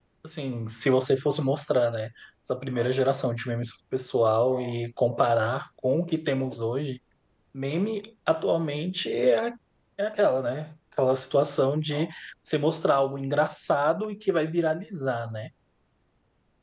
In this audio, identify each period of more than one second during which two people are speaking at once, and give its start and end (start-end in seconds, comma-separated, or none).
none